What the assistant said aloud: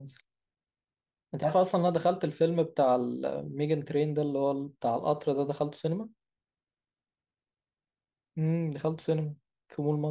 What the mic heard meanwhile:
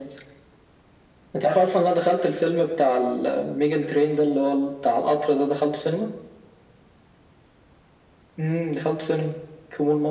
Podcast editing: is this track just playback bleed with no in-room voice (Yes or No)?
Yes